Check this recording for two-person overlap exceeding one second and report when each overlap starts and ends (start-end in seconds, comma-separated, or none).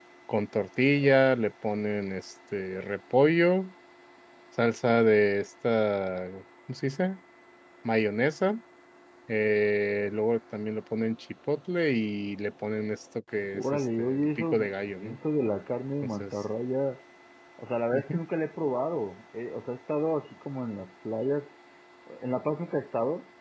13.5-15.2